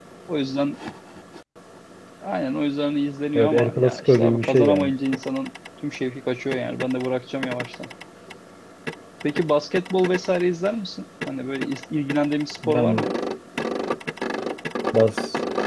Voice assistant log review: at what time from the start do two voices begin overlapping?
3 s

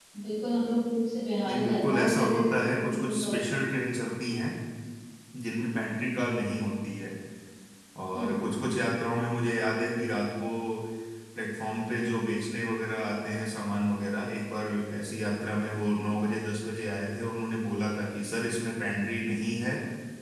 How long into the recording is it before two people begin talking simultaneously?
1 s

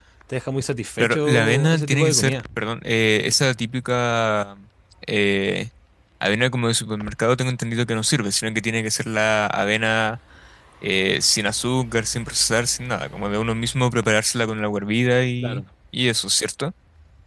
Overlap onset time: 1 s

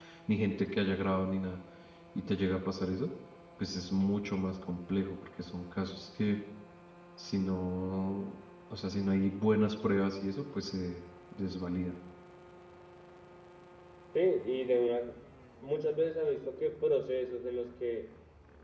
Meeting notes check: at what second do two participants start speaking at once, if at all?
none

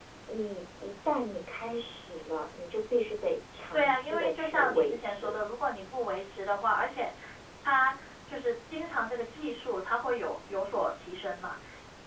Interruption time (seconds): 4 s

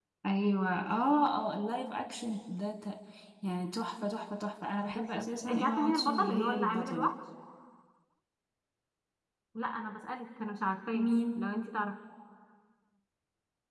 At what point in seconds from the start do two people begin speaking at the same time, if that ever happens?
5 s

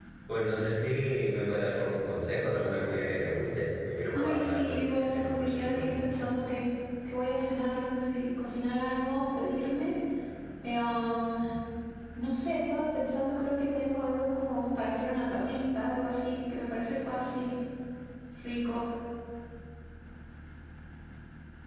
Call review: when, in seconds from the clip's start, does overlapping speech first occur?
4 s

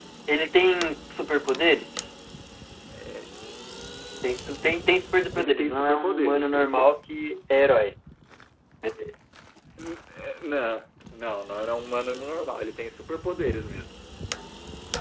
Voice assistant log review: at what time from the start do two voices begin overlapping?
5 s

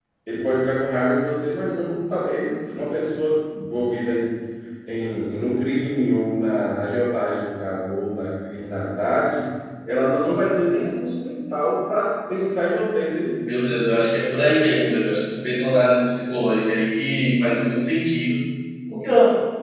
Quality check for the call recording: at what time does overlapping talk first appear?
none

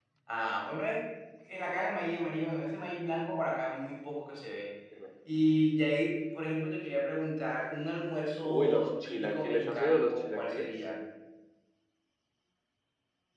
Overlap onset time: 8 s

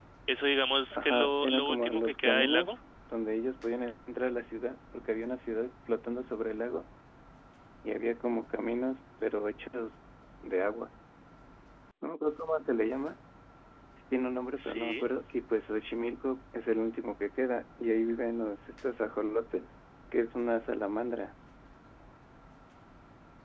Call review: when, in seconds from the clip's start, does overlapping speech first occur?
1 s

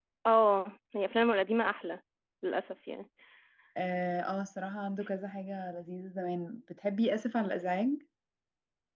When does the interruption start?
none

